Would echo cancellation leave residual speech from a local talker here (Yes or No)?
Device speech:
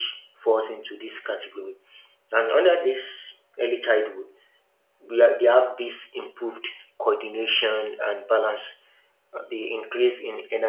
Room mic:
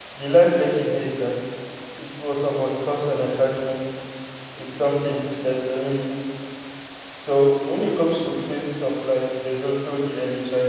Yes